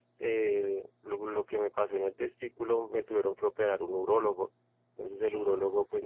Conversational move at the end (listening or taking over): listening